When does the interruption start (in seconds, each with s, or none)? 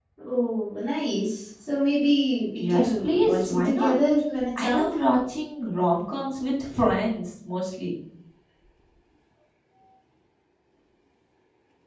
2.6 s